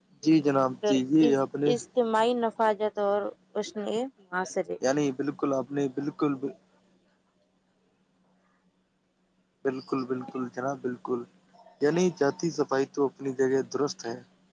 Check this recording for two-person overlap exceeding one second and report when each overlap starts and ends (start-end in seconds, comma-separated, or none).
none